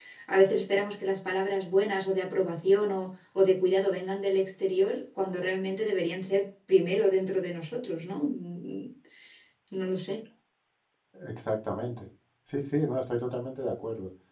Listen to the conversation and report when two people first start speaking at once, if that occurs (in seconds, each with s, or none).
none